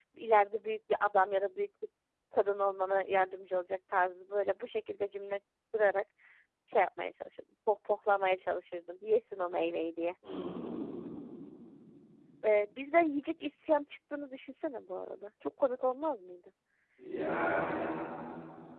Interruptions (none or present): none